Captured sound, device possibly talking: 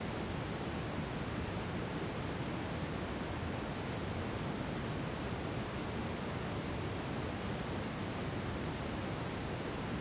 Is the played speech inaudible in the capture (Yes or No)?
Yes